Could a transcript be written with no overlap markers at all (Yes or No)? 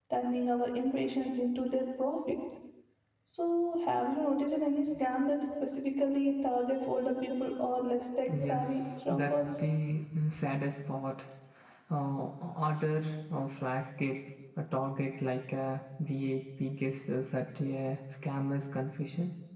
No